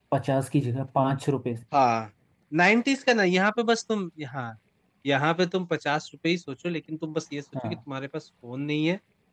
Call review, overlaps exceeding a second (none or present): none